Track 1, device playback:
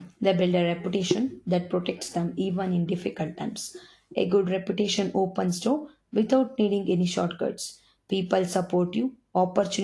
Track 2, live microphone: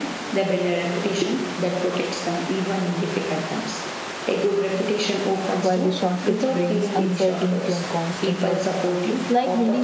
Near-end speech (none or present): present